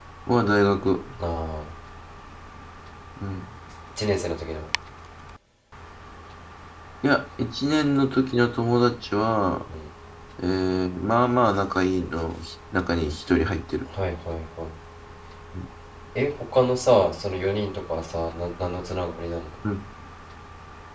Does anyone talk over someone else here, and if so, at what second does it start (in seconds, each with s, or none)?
none